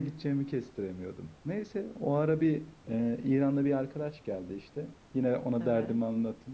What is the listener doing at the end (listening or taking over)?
listening